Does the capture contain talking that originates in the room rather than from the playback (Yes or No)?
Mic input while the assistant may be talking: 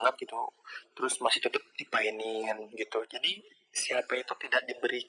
No